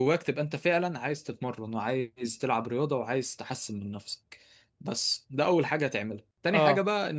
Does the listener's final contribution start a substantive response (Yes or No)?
No